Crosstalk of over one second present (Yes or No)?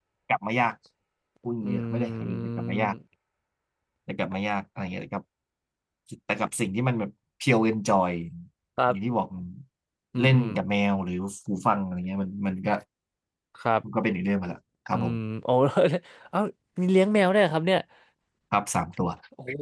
Yes